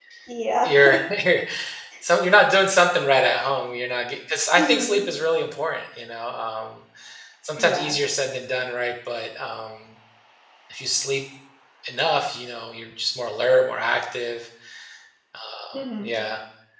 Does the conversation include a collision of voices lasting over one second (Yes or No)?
No